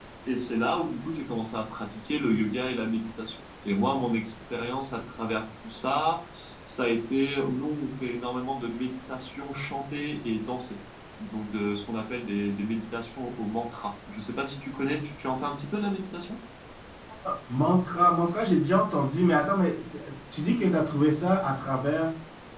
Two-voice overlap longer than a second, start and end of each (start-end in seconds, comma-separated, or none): none